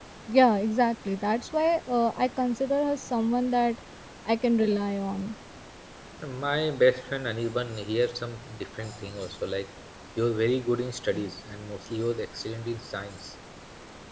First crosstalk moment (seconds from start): none

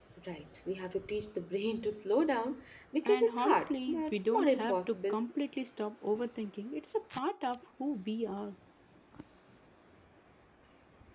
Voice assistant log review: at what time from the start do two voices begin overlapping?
3.0 s

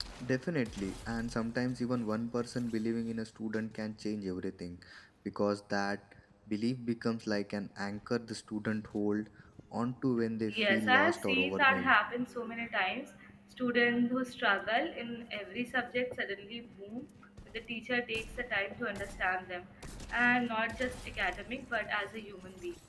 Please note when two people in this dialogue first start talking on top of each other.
10.5 s

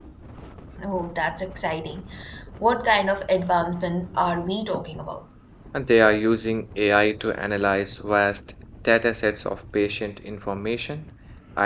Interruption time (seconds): none

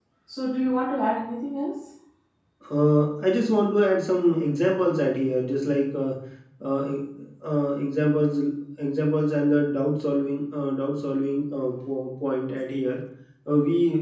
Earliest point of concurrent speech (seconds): none

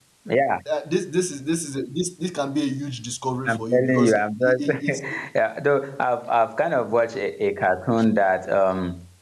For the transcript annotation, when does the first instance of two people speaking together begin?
3.5 s

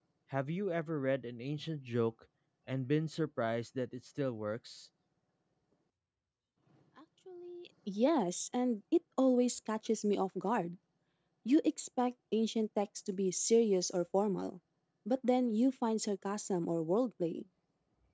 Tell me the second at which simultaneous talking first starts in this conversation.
none

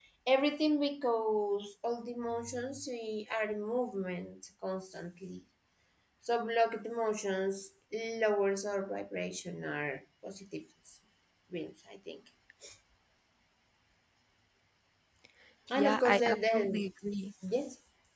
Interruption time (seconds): 15.7 s

